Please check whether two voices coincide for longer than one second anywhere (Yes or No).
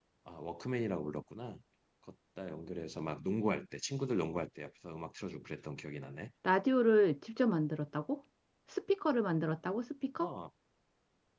No